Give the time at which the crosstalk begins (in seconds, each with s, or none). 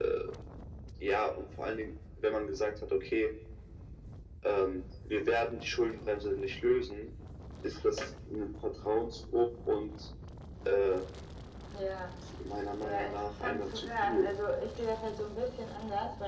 12.8 s